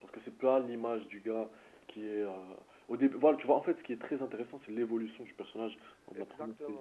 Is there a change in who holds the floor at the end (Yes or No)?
Yes